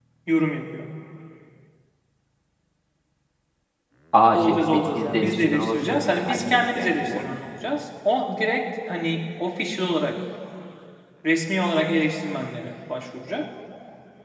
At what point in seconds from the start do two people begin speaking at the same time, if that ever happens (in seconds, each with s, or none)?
4.3 s